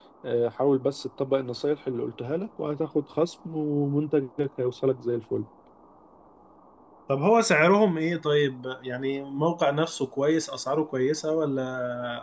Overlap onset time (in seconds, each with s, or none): none